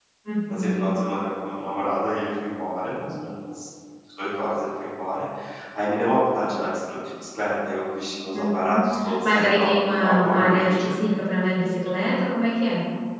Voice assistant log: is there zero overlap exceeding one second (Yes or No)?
No